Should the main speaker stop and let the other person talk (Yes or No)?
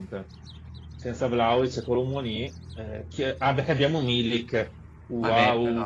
Yes